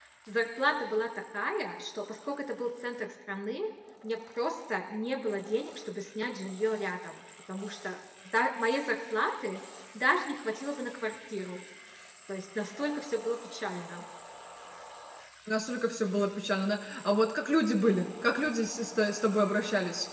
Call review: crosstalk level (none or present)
none